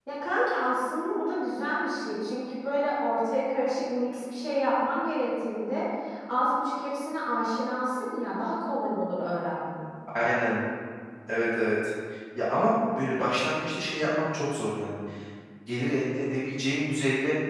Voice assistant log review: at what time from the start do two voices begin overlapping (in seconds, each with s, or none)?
none